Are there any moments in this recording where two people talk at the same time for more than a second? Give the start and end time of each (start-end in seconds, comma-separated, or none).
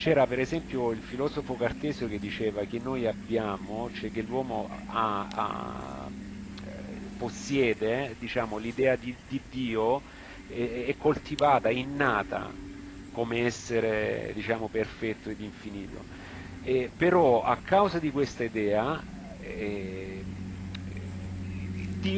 none